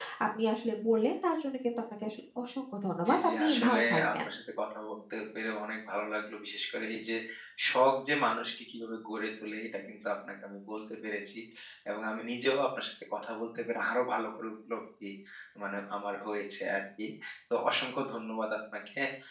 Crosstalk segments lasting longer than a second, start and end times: 3.1-4.3

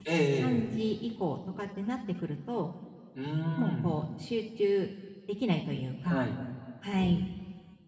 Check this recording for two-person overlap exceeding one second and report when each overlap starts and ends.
none

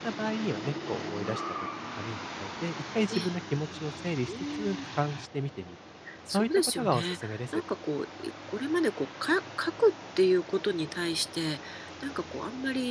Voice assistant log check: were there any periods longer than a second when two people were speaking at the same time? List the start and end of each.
6.3-7.6

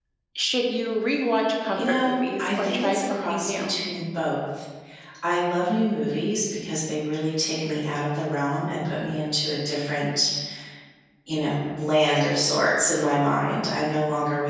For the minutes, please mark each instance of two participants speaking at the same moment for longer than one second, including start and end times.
1.7-3.7

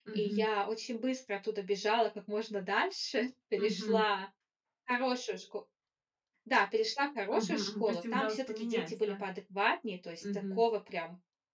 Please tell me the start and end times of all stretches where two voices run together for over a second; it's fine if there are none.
7.3-9.2

